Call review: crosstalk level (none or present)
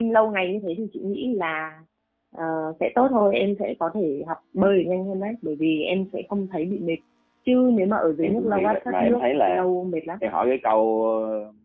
present